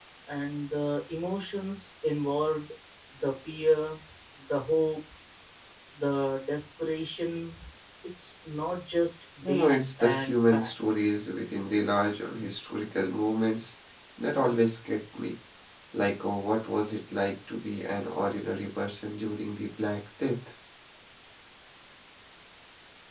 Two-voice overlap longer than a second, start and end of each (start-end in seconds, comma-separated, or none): 9.4-11.1